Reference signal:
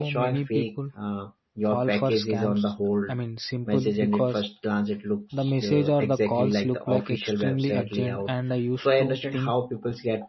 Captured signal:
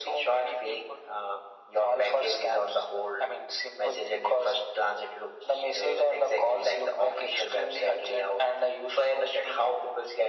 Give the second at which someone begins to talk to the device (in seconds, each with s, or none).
none